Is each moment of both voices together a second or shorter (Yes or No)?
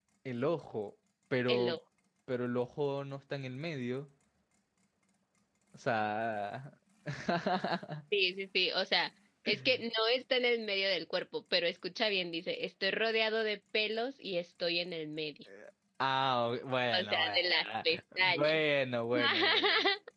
No